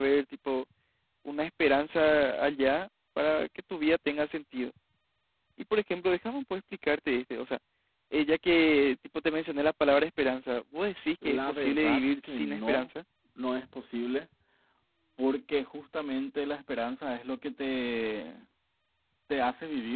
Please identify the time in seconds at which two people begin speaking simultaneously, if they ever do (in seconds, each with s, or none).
11.2 s